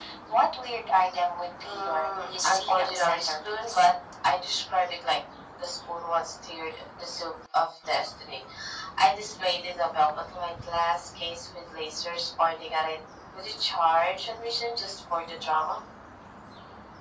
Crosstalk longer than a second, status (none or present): present